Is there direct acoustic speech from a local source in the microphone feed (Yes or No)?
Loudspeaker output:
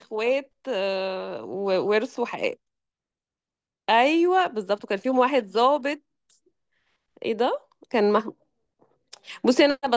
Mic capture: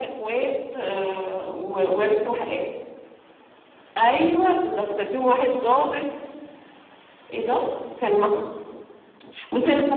Yes